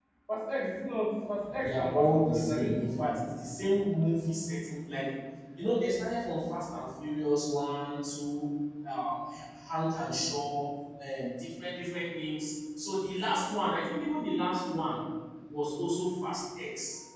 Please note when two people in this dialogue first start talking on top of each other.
1.5 s

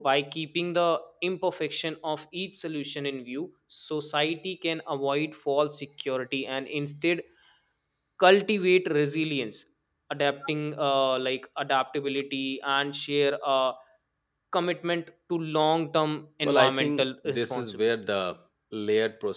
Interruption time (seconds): 16.4 s

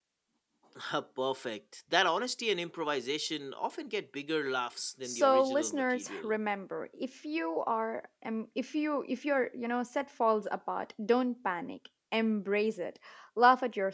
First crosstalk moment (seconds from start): 5.0 s

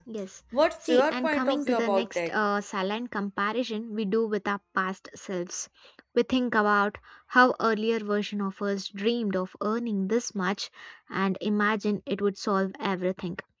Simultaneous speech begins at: 0.8 s

